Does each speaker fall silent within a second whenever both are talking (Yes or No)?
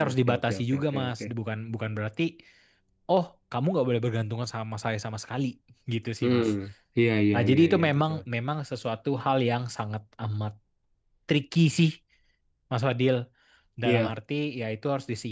No